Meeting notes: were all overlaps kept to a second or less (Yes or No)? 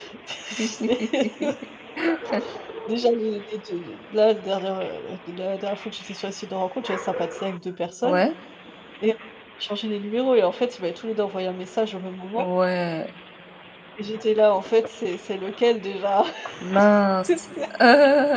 Yes